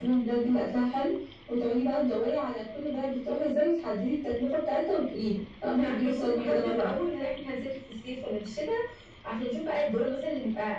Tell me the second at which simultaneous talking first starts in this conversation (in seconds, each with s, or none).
5.7 s